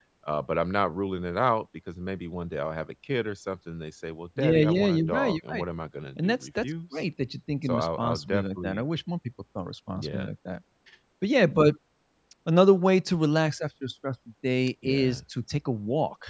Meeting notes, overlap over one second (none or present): present